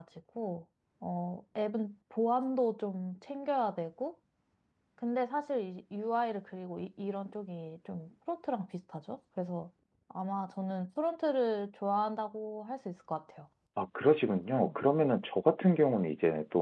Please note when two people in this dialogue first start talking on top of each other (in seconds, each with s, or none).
none